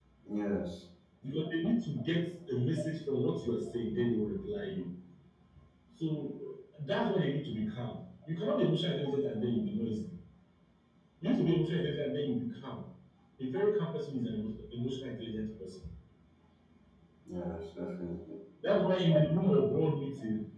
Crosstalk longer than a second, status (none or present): none